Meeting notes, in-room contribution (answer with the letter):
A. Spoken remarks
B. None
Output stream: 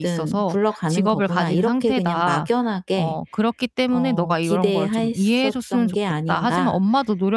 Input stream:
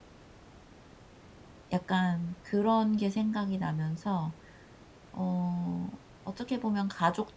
A